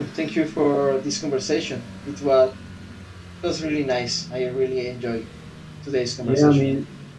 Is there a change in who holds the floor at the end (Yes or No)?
Yes